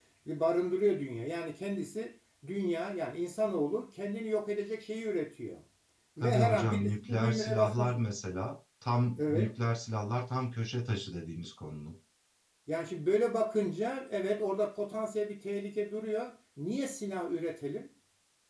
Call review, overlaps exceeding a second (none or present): present